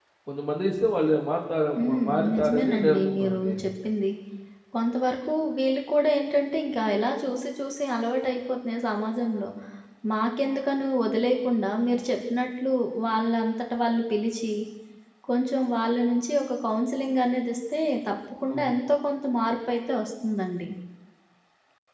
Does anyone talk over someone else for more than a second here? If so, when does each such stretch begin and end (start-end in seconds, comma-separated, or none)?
1.8-3.5